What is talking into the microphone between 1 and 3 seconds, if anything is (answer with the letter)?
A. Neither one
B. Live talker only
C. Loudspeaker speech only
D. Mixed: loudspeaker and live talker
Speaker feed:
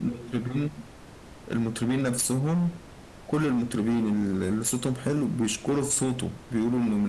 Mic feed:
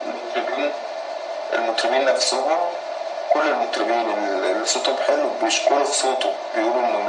C